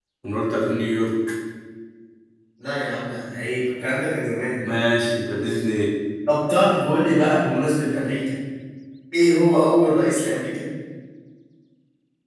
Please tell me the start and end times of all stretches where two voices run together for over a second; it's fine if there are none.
none

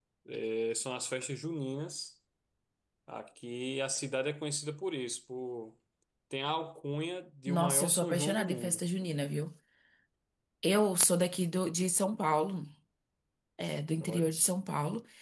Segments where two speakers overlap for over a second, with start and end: 7.5-8.8

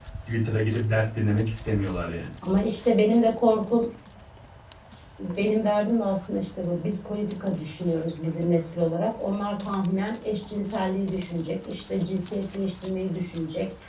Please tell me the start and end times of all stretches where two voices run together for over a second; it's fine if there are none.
none

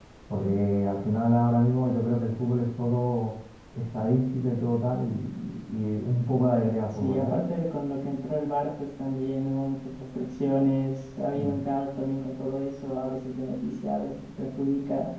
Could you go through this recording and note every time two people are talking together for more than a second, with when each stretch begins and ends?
none

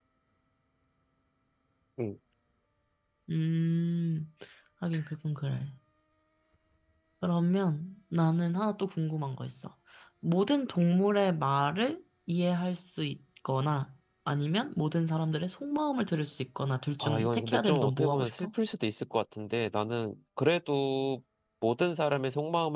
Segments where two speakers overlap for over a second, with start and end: 17.0-18.5

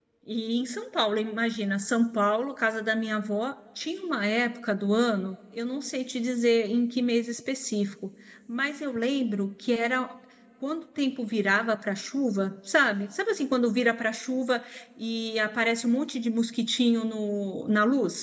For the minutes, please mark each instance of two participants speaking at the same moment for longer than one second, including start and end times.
none

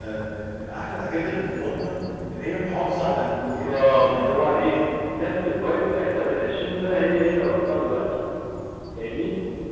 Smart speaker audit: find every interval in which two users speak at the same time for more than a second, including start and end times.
3.4-4.8

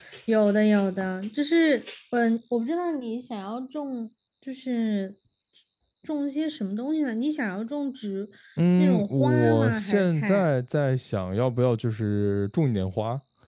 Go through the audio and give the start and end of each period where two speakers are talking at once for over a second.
8.8-10.5

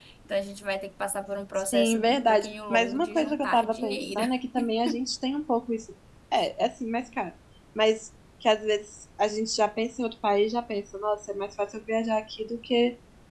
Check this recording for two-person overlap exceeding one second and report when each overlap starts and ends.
1.7-4.2

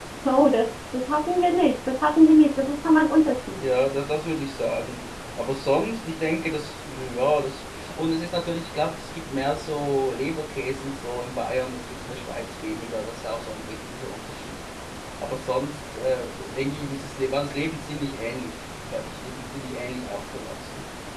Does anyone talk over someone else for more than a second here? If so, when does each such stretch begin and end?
none

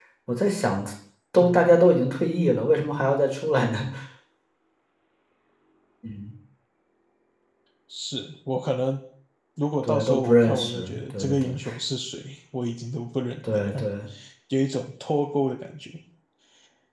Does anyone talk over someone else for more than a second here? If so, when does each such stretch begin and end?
9.8-11.5

